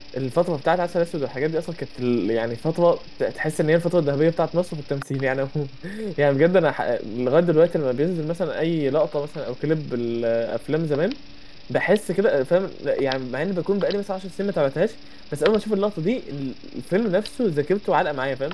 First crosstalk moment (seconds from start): none

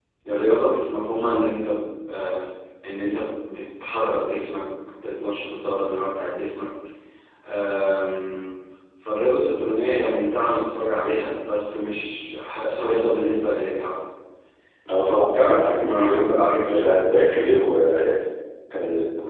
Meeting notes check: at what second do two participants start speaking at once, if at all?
15.3 s

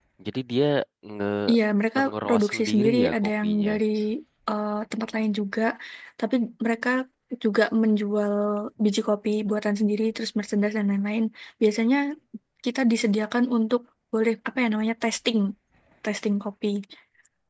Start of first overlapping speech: 2.1 s

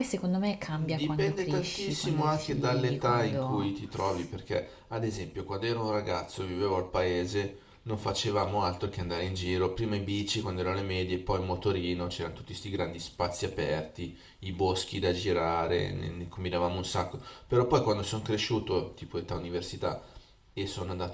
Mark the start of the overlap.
0.7 s

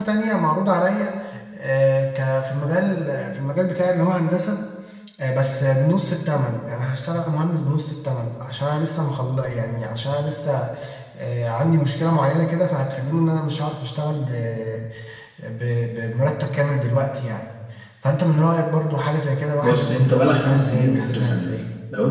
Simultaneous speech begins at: 19.6 s

